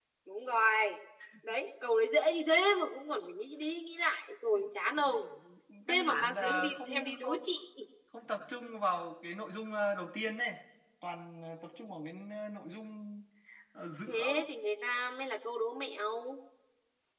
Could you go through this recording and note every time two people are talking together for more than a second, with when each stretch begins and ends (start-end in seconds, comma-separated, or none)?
5.9-7.4